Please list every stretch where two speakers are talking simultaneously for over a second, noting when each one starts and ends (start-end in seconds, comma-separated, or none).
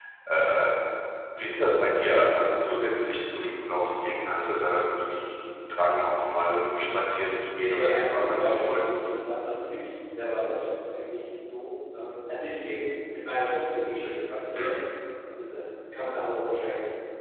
7.6-8.9